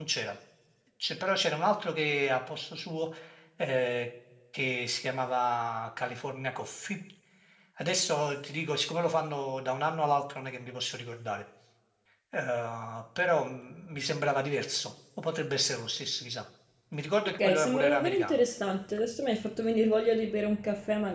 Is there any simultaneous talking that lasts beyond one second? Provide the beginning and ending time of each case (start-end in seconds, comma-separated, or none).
17.2-18.4